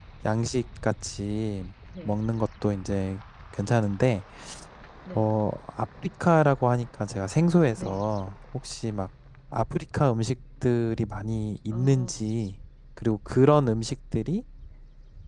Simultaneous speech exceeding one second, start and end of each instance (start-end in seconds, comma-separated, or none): none